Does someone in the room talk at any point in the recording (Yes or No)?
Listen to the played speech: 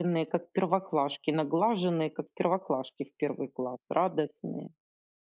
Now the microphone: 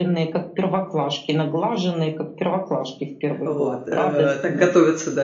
Yes